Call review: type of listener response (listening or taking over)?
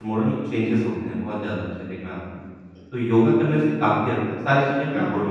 taking over